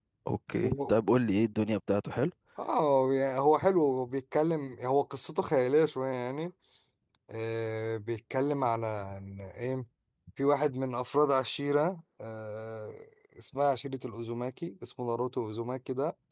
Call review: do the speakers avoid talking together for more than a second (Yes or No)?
Yes